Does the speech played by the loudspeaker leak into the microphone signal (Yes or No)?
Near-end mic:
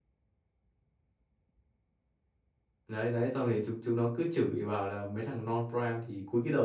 No